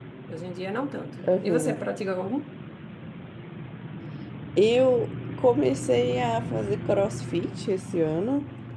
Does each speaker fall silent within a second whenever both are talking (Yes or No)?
Yes